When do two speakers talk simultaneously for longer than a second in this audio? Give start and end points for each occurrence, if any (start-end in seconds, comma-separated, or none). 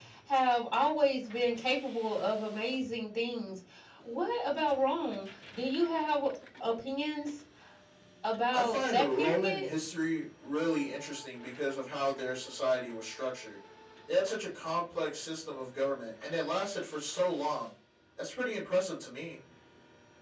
8.5-9.7